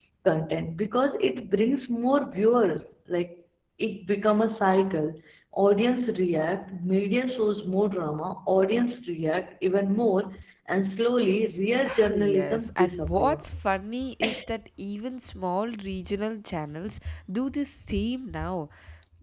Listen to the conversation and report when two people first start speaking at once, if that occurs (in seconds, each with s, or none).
12.1 s